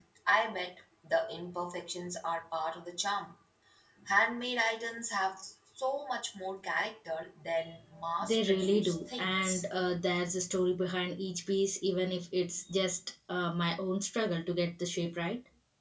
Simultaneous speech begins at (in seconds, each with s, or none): 8.2 s